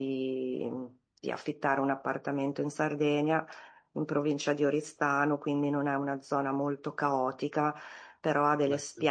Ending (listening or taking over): listening